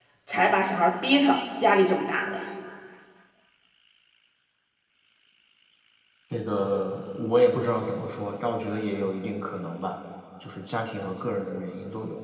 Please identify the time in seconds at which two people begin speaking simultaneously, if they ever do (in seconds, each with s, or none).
none